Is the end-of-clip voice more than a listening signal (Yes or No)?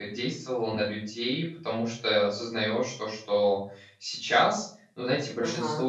No